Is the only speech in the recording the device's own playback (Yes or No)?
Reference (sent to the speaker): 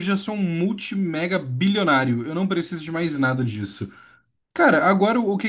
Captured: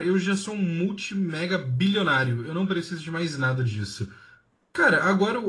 Yes